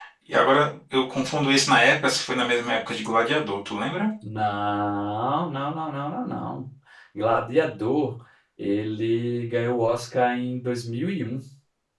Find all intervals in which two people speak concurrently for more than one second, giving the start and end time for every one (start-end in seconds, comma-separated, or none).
none